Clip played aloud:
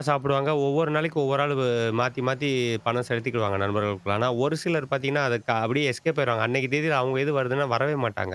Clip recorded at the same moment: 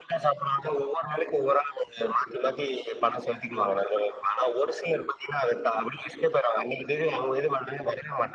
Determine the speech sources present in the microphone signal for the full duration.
echo only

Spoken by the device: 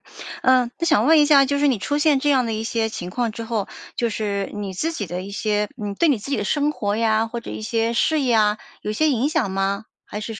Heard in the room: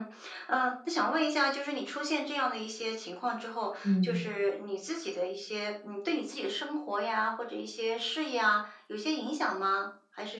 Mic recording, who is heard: both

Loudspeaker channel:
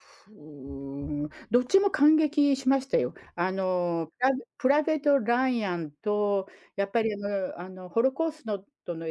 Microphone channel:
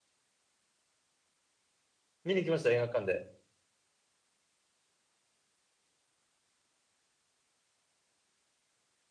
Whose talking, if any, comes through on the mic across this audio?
user only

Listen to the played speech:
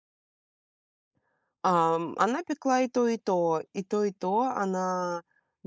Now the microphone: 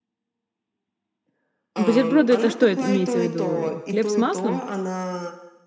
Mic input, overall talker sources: both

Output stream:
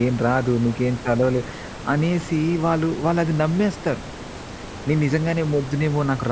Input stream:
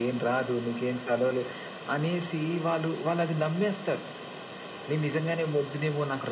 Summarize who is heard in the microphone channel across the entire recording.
echo only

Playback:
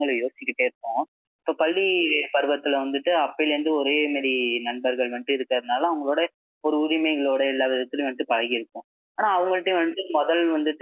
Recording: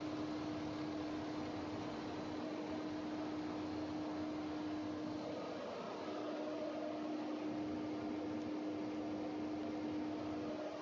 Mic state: neither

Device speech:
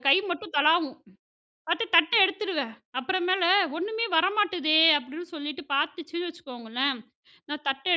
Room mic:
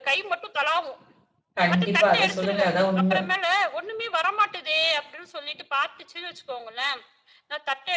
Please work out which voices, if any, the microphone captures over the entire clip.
both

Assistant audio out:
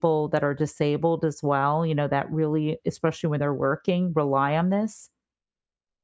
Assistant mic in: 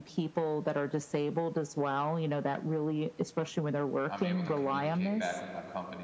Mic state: both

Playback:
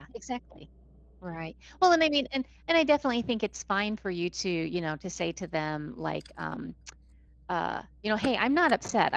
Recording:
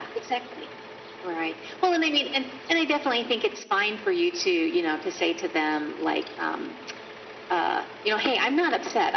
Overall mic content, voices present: echo only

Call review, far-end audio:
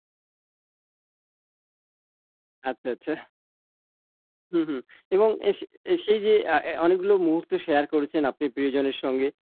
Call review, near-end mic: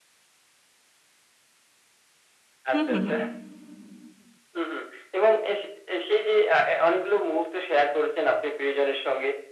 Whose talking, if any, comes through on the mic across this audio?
both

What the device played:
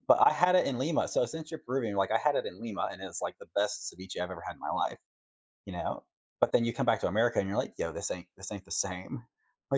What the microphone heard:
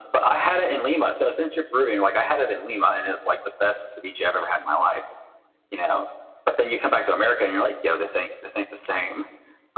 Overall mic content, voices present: echo only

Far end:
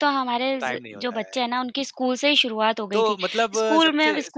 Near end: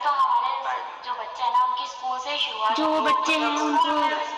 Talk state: both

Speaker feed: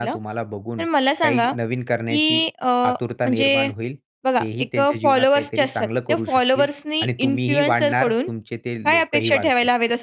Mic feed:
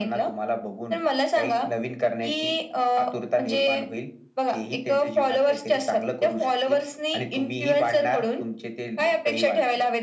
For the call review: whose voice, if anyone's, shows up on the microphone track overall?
echo only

